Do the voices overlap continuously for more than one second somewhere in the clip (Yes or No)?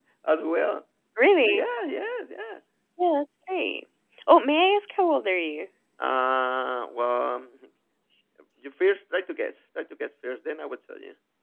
No